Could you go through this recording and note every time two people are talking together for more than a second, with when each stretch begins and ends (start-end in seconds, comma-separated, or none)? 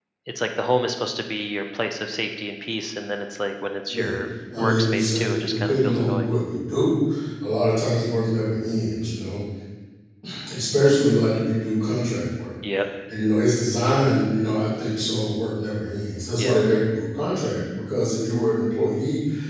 4.6-6.3